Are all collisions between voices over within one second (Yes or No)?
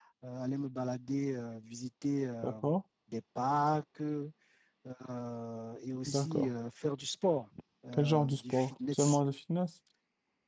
No